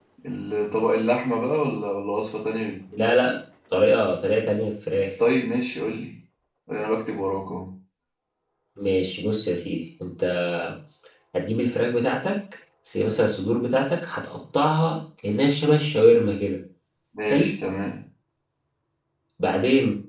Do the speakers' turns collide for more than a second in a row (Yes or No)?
No